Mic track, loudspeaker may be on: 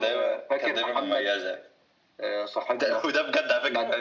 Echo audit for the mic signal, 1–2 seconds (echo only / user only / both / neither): echo only